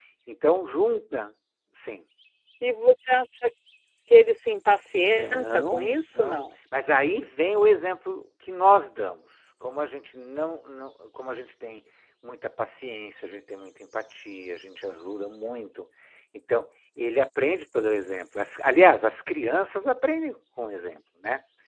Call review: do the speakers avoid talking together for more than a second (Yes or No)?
No